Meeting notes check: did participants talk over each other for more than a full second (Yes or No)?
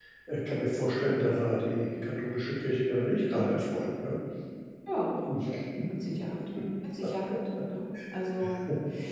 No